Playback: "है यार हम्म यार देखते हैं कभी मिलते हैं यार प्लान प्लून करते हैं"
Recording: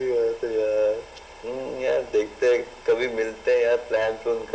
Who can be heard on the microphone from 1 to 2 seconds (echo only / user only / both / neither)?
echo only